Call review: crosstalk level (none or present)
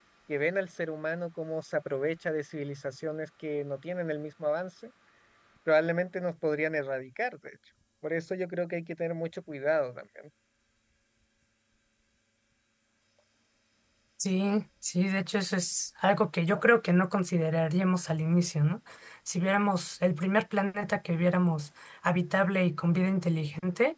none